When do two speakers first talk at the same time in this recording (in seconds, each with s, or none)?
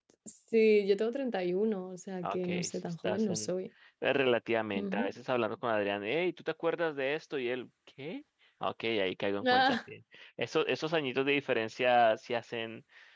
2.2 s